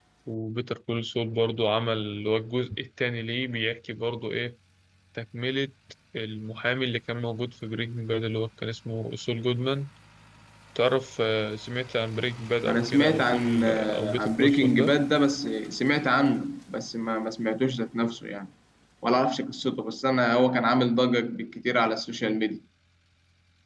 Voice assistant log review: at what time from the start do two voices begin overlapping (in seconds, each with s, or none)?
12.6 s